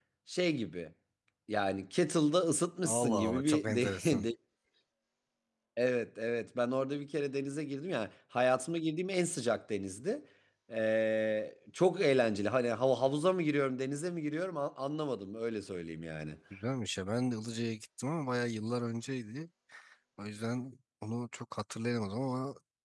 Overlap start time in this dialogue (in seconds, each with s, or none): 2.9 s